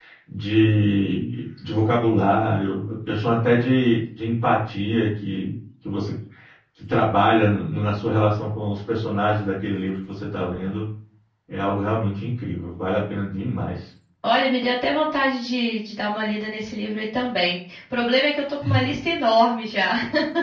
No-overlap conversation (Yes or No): Yes